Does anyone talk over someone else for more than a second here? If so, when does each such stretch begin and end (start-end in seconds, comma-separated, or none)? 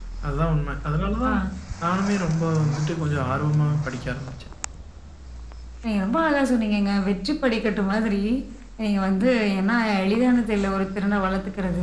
none